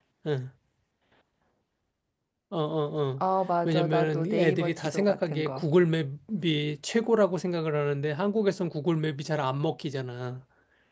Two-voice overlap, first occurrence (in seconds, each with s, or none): 3.6 s